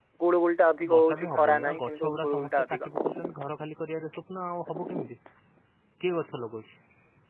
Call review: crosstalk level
present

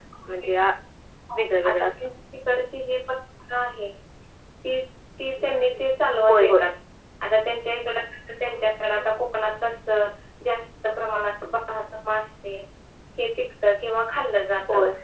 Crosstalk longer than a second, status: none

